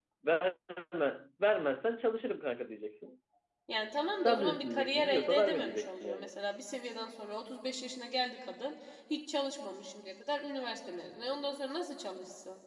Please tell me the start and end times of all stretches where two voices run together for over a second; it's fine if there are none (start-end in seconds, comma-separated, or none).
4.2-6.3